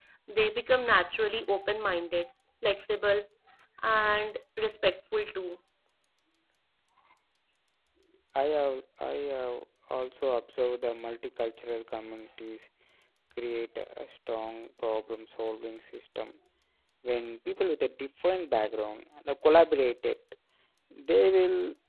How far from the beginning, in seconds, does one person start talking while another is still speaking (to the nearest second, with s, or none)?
none